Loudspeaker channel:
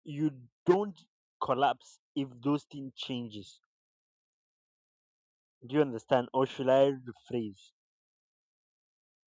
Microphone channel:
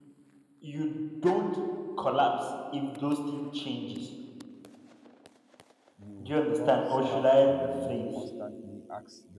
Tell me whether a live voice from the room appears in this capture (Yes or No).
Yes